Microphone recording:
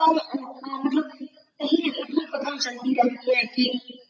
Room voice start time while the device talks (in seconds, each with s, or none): none